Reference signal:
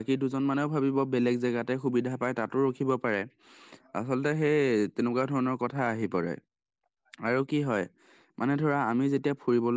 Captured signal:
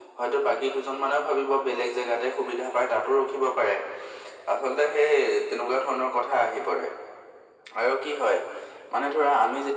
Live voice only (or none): none